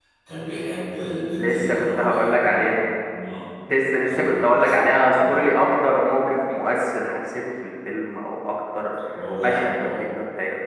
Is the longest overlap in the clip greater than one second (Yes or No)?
Yes